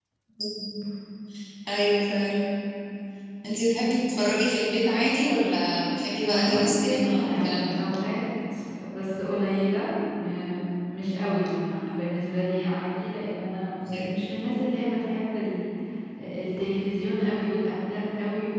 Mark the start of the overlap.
6 s

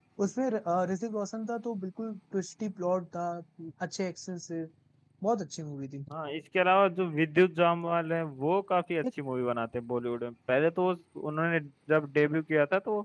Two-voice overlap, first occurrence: none

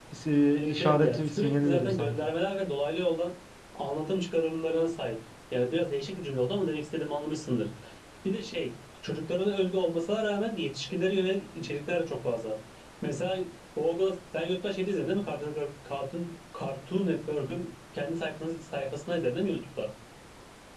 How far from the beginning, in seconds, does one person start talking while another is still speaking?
1 s

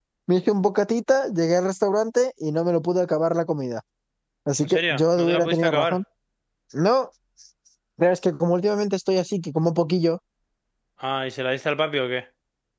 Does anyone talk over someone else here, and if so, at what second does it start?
5 s

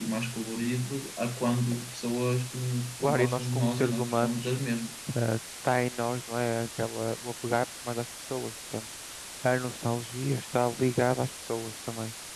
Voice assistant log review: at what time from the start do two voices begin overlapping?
3 s

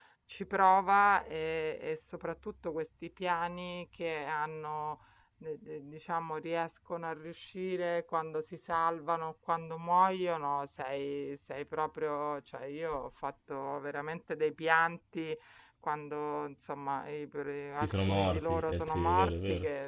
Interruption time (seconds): 18 s

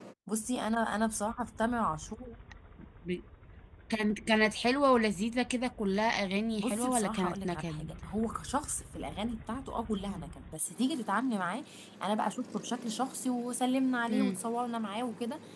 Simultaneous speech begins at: 7 s

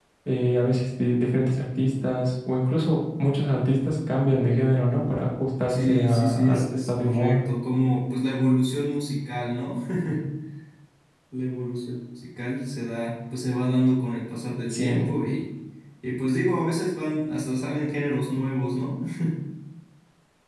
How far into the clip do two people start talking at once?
6 s

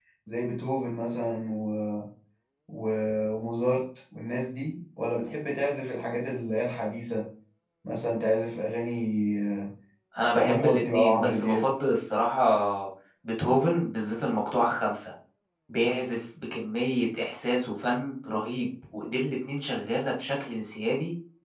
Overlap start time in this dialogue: 10 s

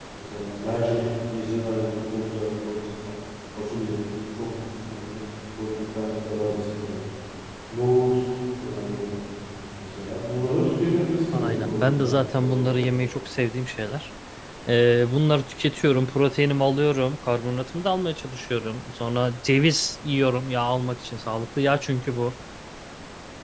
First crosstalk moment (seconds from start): 11 s

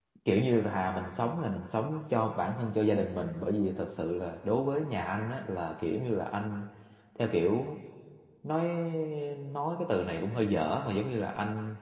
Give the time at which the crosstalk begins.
none

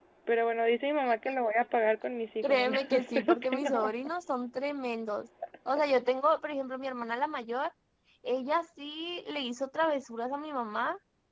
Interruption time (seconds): 2 s

